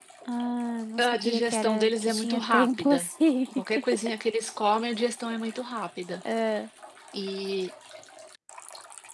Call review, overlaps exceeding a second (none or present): present